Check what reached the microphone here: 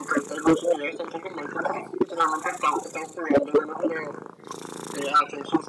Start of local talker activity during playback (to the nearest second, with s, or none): none